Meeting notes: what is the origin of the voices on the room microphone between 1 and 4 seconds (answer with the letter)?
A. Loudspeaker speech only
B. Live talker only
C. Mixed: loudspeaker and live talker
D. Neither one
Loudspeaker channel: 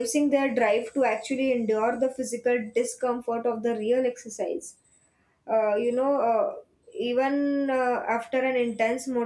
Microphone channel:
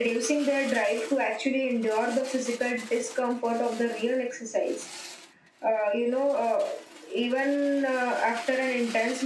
A